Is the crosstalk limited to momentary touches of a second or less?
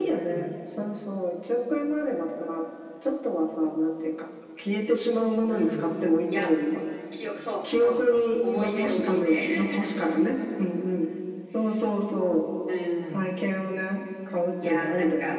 No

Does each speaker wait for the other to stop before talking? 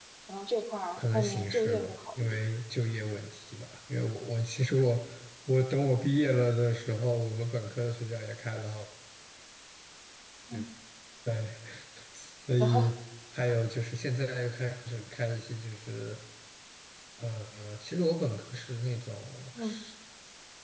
No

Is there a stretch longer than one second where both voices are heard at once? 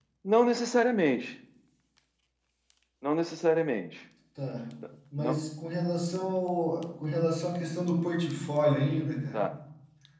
No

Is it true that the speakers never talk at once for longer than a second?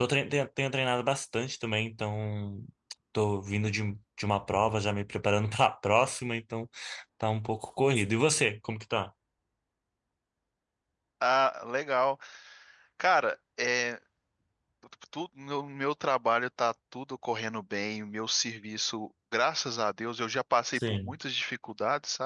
Yes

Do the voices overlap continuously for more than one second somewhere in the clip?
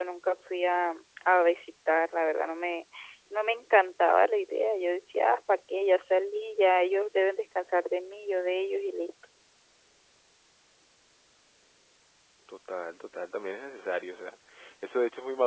No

